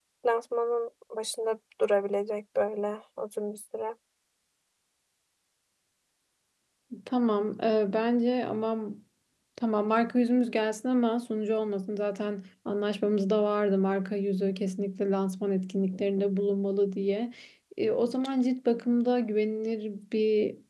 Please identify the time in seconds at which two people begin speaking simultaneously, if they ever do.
none

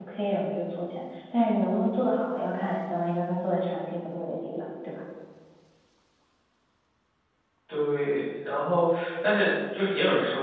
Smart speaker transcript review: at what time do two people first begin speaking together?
none

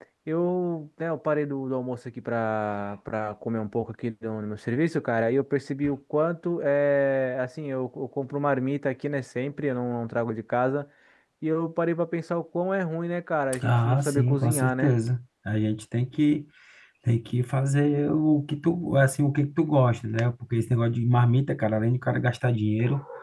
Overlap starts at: 13.6 s

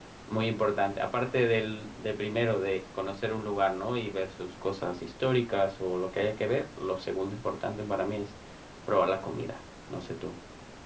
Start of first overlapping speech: none

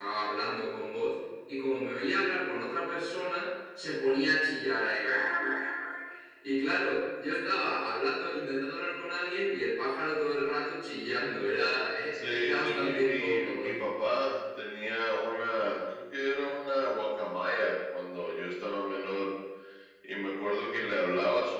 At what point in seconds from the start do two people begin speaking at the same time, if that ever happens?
12.1 s

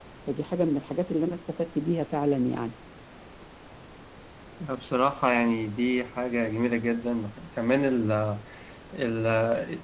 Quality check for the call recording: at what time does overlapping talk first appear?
none

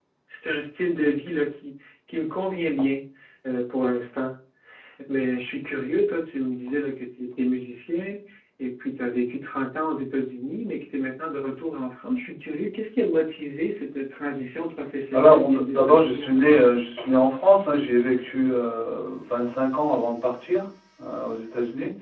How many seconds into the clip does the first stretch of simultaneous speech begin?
15.1 s

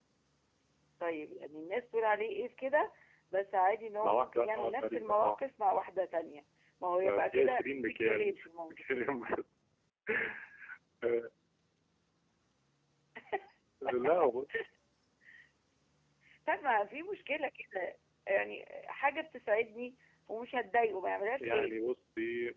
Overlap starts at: 4.0 s

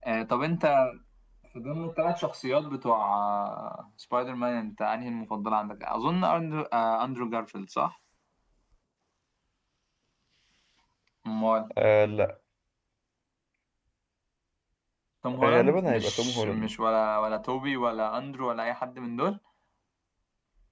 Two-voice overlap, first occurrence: 15.4 s

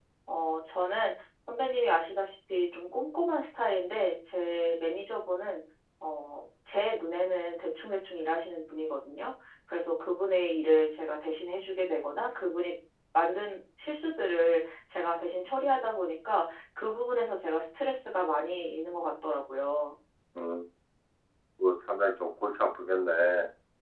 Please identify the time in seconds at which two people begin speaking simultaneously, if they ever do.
none

